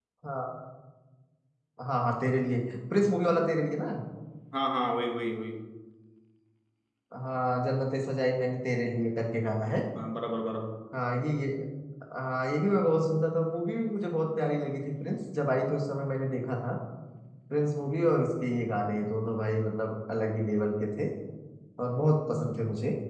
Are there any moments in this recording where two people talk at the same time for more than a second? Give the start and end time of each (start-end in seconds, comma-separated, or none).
none